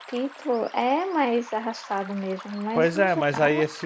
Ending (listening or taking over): taking over